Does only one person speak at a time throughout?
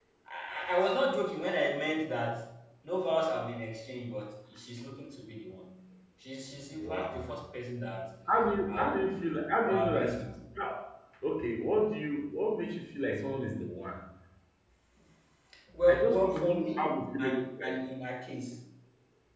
No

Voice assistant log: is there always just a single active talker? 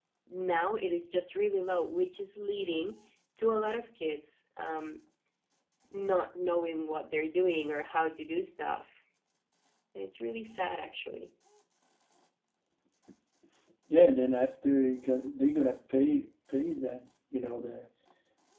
Yes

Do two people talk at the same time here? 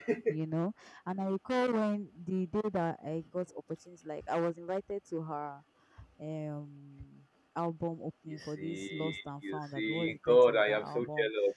Yes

